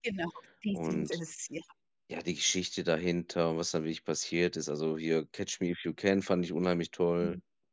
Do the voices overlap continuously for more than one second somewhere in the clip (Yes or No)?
No